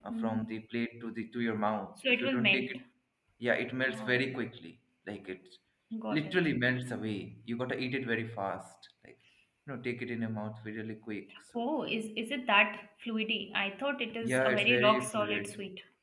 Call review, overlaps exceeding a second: present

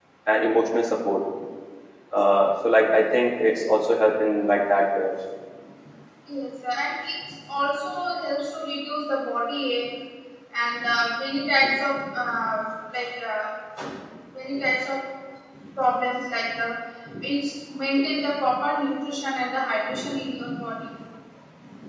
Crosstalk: none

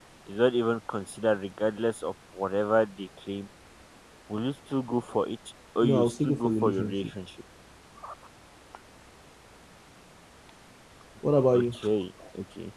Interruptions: present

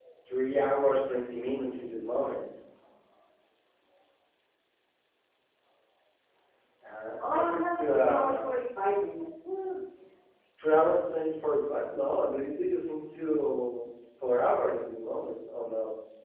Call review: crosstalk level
present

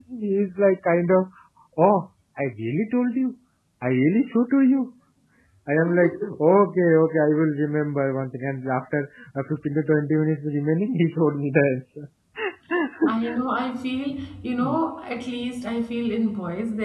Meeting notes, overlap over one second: none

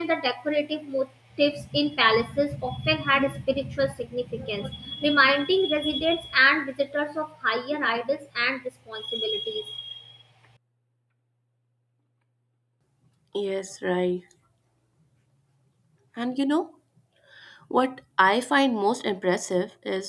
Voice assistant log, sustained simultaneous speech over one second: none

